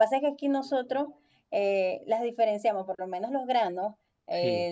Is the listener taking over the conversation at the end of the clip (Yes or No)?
No